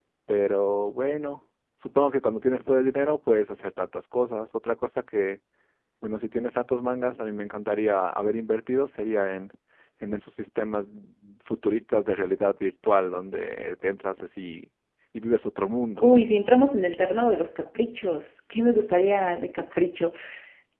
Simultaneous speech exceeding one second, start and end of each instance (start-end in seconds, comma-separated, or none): none